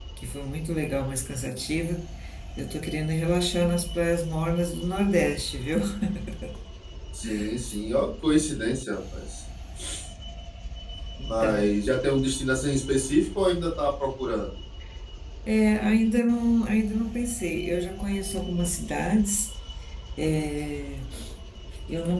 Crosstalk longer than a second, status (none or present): none